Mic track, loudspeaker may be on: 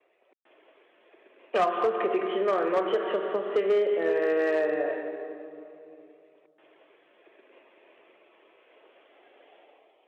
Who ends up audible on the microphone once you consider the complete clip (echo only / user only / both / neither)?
user only